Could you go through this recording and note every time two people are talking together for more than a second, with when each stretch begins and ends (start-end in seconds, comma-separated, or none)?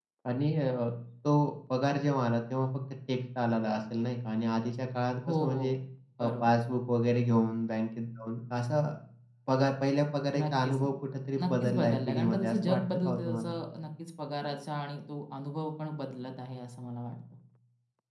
11.4-13.5